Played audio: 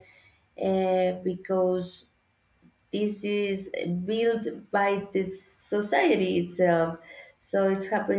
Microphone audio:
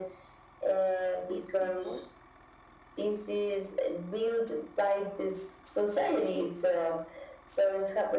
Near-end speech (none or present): present